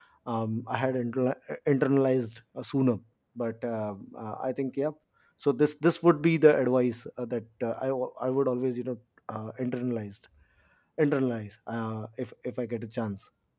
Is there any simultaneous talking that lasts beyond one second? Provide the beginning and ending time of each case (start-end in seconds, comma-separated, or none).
none